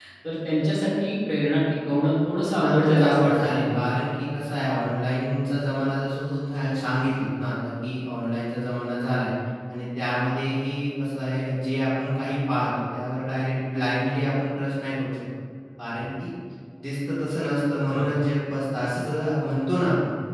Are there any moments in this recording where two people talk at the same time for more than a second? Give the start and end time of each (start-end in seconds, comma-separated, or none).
2.6-3.9